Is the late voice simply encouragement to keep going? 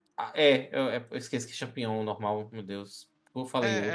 No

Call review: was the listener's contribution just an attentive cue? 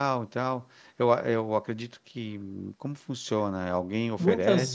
No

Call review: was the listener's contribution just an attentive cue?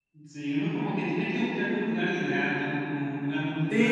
No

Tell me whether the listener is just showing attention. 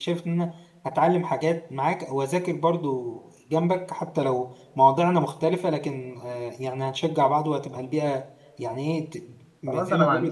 No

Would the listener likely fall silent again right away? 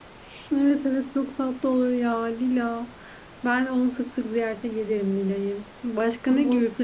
Yes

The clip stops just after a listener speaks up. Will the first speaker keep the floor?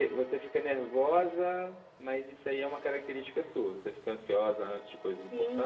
No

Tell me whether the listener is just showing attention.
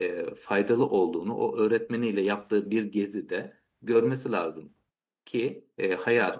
Yes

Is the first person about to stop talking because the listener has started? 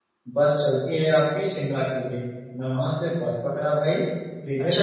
Yes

